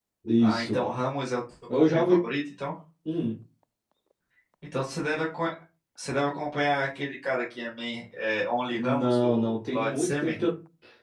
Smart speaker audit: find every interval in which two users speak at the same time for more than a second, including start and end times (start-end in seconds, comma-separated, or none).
8.7-10.4